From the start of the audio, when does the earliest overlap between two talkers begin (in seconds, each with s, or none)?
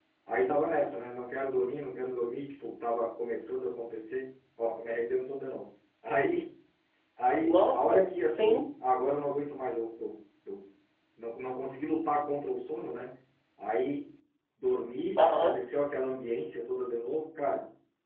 7.4 s